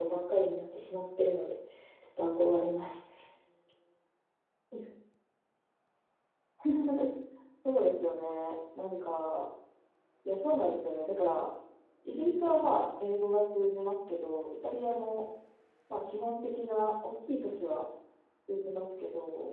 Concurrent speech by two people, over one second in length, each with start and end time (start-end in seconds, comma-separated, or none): none